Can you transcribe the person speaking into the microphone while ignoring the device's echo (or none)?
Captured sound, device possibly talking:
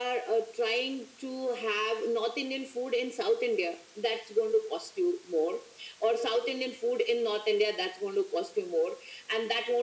none